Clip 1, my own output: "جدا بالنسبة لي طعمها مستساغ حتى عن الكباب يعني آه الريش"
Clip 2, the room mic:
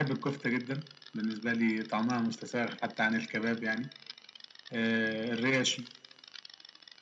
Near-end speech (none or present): none